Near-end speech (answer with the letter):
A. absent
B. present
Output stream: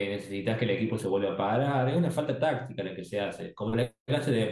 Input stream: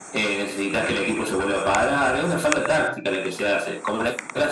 A